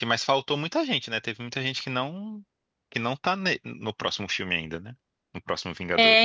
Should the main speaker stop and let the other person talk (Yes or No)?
Yes